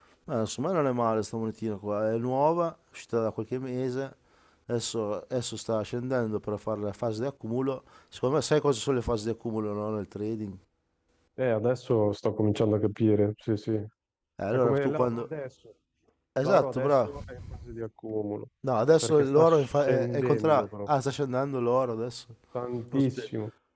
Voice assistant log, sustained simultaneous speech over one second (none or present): present